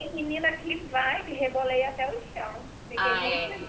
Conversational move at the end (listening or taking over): taking over